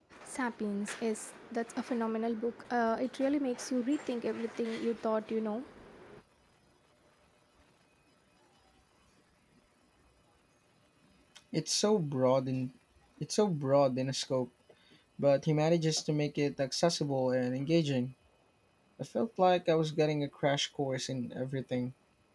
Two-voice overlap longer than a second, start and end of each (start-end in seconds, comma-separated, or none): none